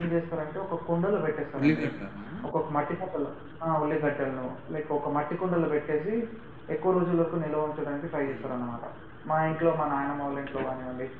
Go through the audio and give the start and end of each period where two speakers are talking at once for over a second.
none

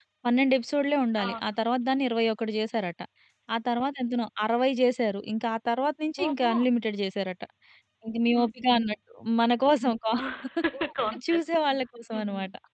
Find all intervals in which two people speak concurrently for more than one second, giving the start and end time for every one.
none

